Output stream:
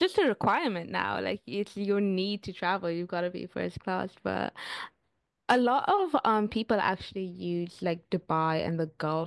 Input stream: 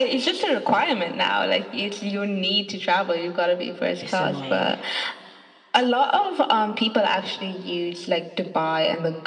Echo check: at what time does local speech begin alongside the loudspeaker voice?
4.0 s

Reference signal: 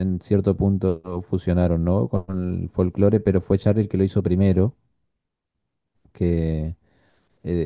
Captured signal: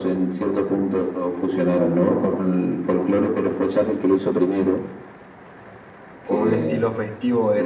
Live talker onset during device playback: 6.2 s

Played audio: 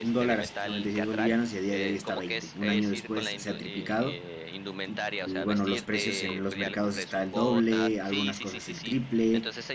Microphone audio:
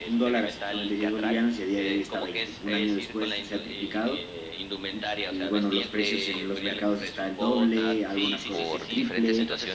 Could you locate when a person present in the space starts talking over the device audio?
8.5 s

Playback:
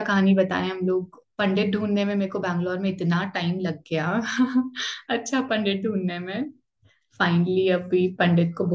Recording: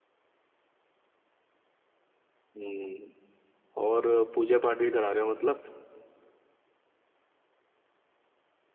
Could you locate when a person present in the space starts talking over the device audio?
2.5 s

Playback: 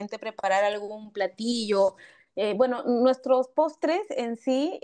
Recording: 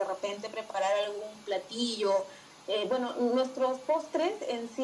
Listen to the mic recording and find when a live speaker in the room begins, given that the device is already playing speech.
none

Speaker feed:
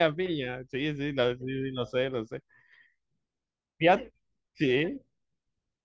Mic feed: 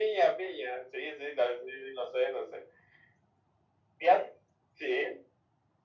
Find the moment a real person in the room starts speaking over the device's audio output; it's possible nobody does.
none

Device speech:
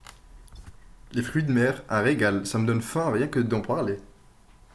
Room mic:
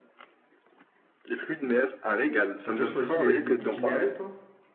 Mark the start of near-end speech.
2.6 s

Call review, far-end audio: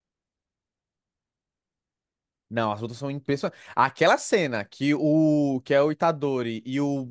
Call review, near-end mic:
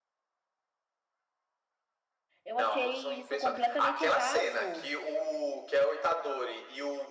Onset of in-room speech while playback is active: 2.4 s

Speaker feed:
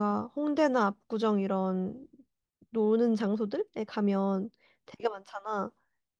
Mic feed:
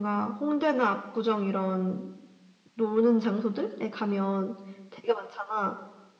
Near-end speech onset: none

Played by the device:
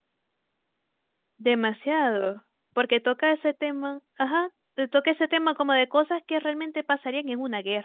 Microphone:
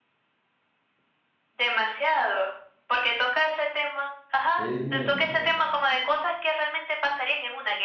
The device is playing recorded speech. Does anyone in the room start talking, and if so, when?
4.5 s

